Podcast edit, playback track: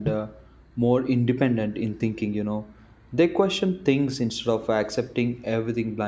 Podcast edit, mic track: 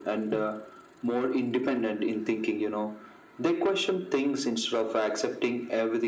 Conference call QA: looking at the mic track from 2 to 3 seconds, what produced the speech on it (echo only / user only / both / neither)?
echo only